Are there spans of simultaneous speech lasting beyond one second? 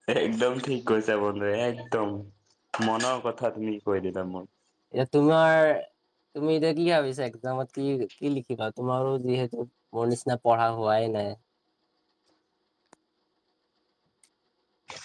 No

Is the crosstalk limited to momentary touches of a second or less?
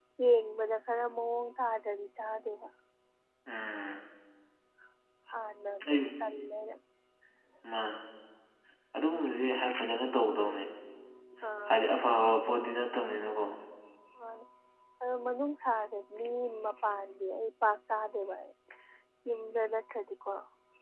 Yes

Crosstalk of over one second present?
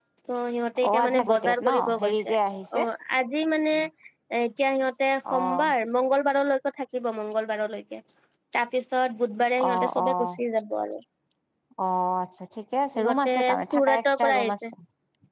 Yes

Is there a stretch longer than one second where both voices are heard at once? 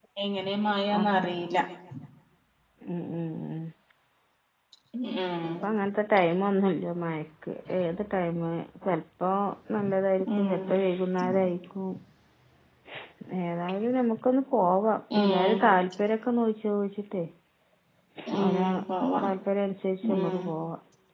No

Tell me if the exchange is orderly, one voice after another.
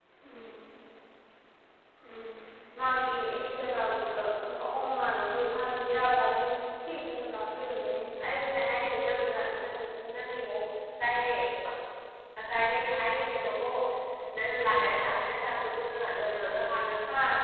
Yes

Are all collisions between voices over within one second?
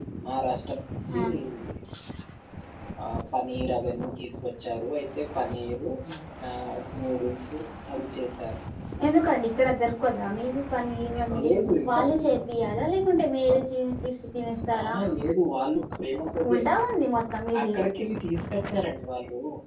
Yes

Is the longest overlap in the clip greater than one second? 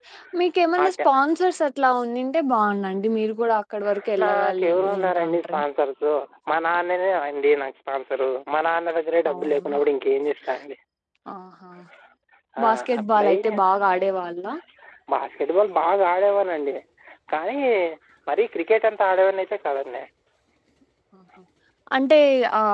Yes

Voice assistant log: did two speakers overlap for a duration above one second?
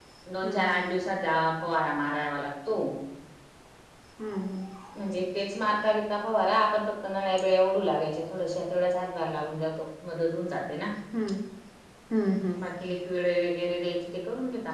No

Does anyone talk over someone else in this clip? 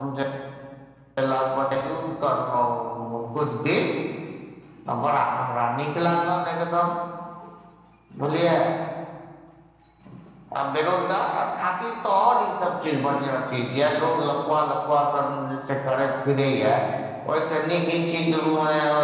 No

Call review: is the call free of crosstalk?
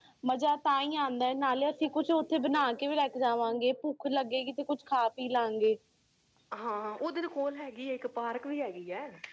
Yes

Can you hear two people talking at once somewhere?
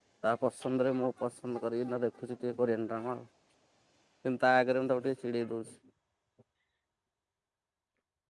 No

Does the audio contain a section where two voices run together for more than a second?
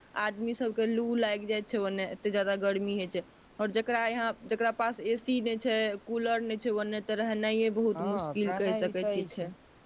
Yes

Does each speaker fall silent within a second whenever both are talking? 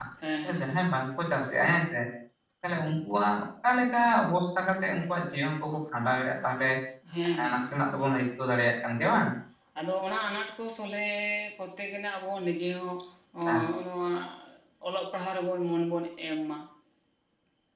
Yes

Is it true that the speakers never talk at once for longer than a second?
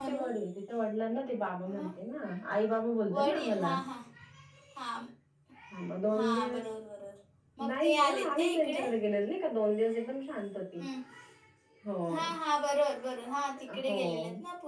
No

